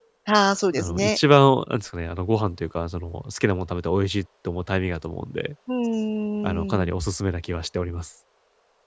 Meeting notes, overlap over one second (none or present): none